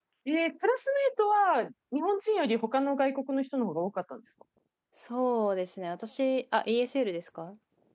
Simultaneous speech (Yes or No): No